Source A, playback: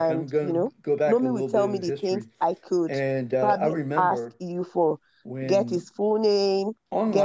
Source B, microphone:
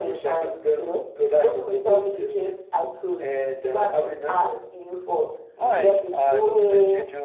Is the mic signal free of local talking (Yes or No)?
No